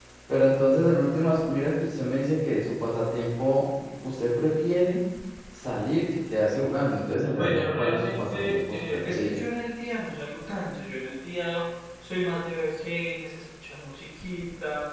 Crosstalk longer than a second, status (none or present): present